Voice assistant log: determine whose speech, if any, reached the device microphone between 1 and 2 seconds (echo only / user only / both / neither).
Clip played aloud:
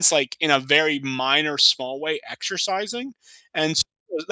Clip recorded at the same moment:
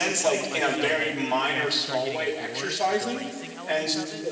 both